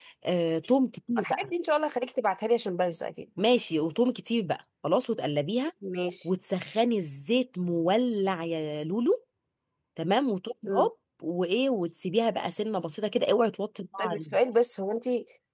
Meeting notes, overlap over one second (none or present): none